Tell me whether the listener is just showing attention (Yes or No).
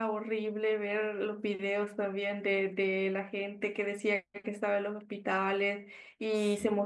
Yes